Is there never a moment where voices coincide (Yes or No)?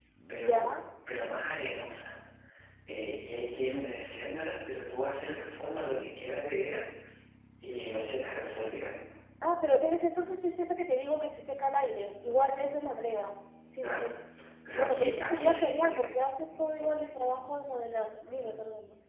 No